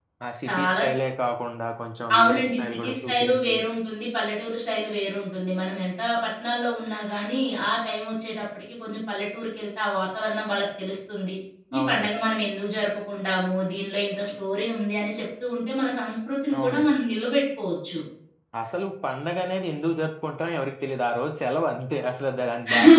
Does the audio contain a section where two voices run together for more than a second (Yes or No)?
Yes